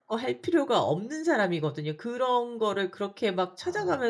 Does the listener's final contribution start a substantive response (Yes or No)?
No